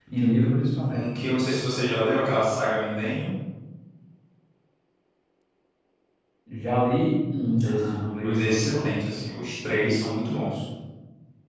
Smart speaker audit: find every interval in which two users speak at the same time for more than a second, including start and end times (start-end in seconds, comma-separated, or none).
7.7-8.9